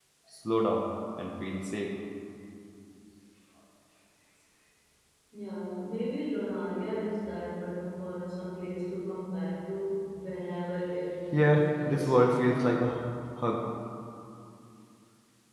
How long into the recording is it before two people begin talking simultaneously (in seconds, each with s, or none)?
11.3 s